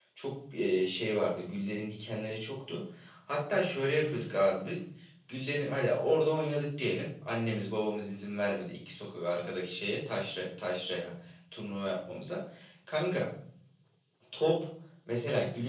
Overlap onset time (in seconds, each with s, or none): none